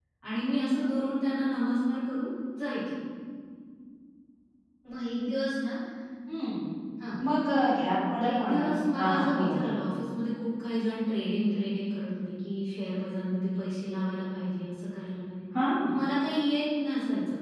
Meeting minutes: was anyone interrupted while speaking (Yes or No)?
Yes